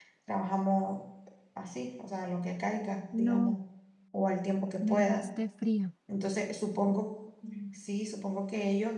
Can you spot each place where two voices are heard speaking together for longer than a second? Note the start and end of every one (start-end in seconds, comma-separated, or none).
none